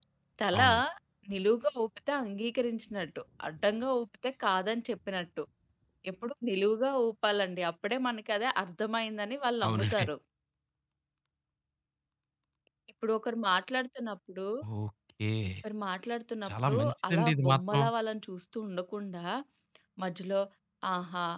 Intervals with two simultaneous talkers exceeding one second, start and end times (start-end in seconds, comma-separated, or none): 16.5-17.8